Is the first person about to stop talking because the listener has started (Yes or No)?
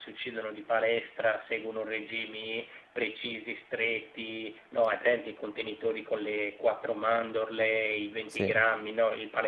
No